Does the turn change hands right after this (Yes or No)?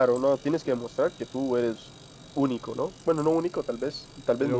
No